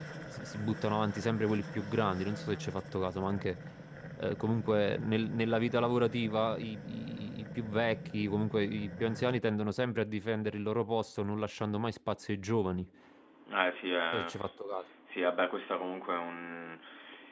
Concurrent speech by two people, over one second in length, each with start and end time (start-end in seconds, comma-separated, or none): none